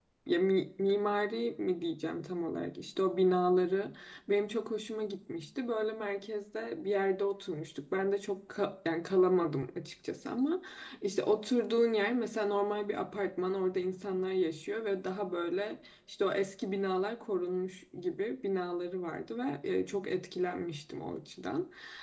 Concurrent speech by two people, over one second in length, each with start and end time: none

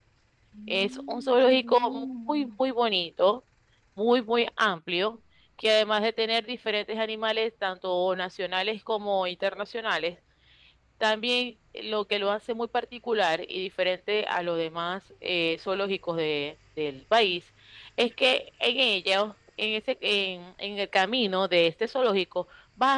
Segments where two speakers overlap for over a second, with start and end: 0.7-2.5

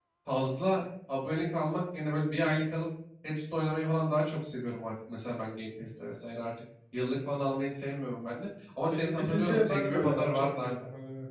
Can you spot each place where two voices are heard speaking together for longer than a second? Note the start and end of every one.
8.9-10.7

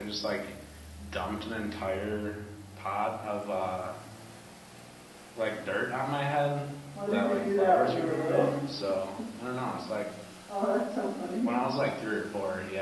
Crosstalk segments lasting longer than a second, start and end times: 7.1-8.5

